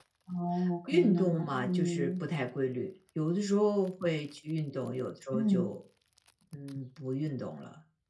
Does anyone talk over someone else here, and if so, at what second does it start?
1 s

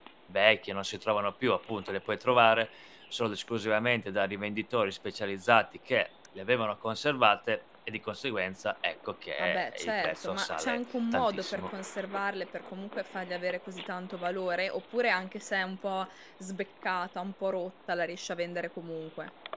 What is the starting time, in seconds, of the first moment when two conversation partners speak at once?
9 s

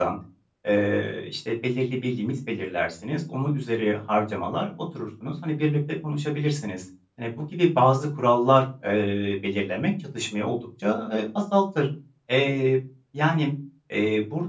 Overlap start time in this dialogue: none

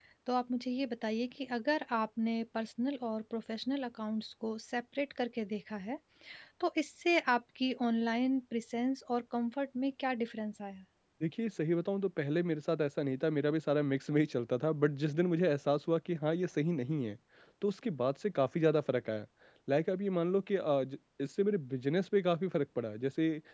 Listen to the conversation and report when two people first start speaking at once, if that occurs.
none

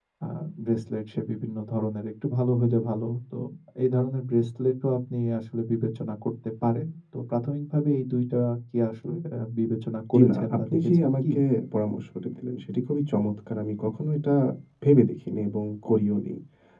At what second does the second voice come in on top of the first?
10 s

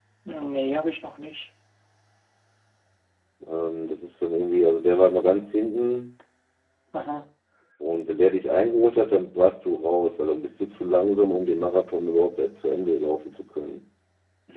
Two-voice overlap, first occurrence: none

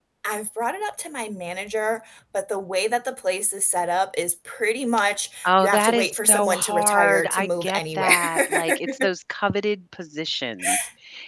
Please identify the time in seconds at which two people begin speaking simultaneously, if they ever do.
5 s

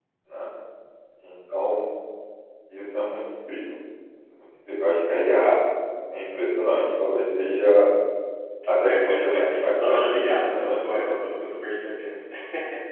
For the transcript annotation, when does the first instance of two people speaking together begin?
9 s

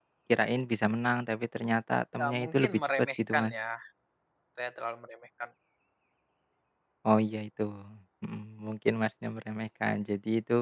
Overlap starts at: 2 s

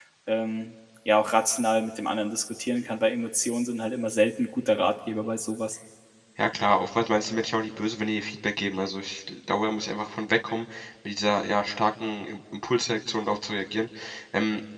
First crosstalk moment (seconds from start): none

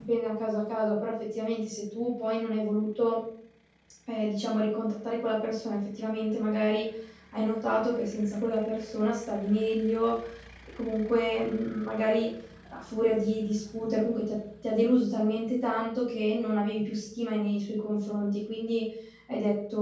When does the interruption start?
none

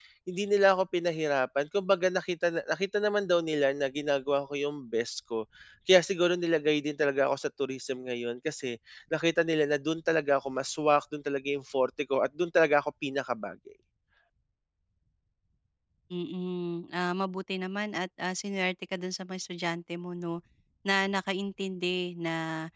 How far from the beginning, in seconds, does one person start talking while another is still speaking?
none

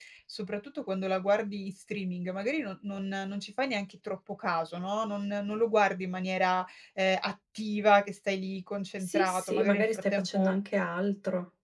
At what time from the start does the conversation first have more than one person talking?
9 s

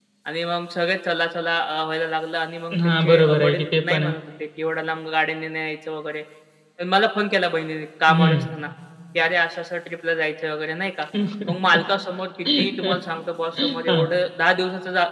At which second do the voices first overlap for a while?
3 s

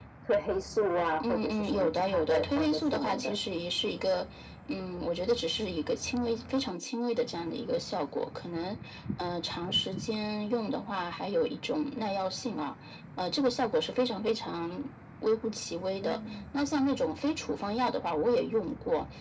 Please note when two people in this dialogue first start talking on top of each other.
1 s

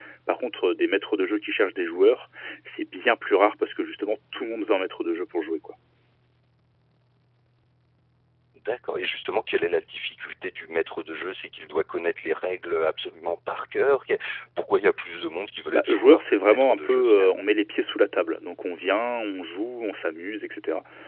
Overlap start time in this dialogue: 16 s

